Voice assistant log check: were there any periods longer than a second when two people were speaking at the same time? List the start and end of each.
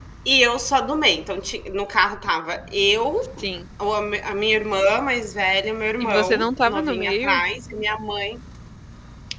6.0-7.4

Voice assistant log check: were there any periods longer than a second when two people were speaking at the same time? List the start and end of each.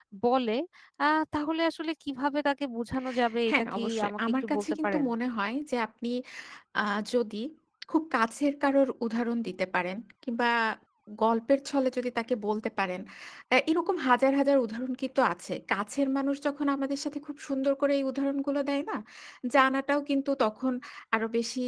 3.5-5.0

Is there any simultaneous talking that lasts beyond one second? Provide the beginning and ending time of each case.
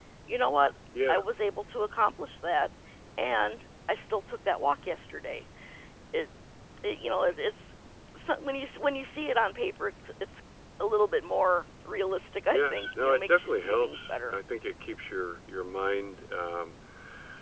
12.5-14.3

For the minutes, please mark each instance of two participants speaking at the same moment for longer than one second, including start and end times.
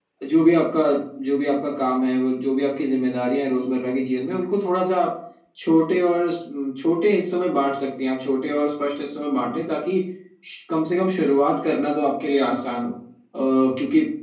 none

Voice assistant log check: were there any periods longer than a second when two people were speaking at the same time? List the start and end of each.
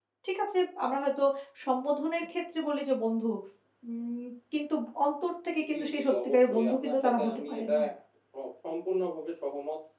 5.7-7.8

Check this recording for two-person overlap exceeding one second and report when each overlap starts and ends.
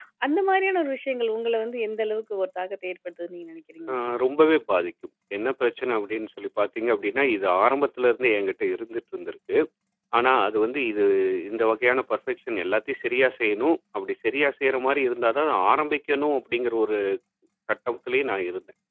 none

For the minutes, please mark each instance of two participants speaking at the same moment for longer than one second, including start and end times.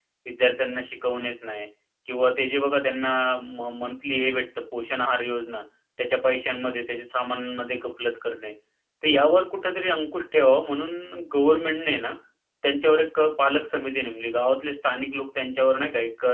none

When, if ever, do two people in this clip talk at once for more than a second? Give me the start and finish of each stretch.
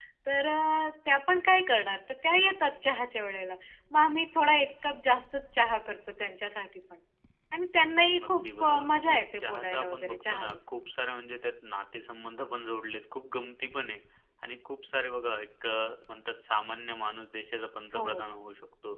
8.2-10.6

